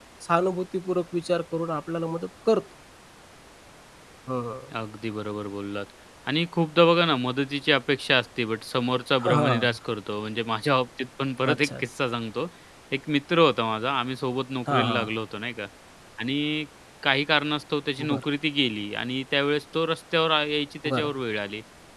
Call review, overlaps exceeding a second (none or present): none